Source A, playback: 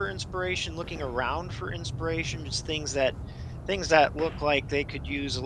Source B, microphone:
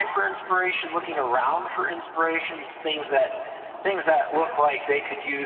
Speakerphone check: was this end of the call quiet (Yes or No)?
Yes